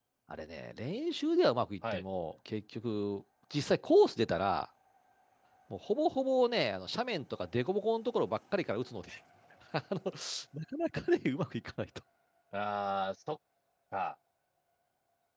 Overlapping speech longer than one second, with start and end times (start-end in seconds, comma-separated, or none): none